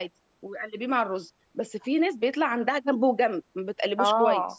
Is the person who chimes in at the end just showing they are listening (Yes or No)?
No